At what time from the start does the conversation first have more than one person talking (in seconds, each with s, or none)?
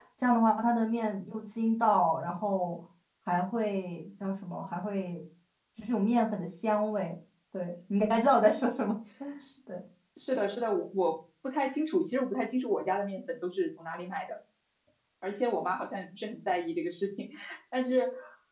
none